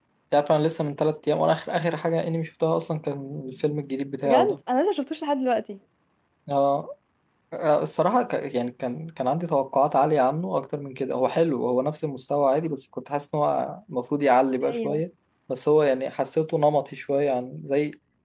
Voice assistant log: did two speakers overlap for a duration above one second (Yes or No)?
No